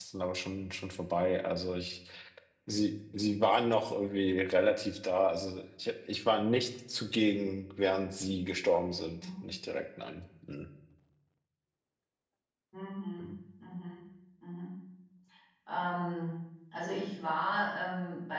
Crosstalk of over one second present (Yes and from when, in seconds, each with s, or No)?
No